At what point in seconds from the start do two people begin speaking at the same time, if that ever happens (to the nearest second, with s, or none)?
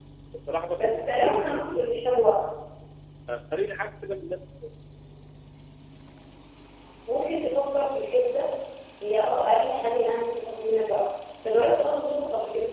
1 s